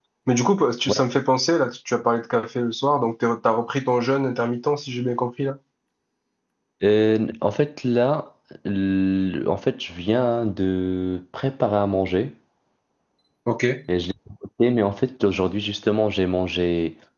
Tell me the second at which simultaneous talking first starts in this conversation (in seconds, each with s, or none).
none